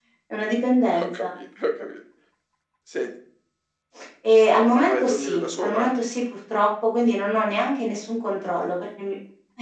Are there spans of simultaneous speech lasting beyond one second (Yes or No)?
Yes